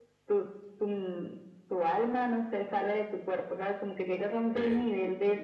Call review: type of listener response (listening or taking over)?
listening